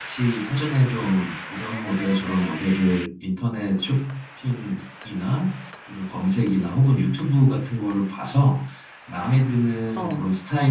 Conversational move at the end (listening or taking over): listening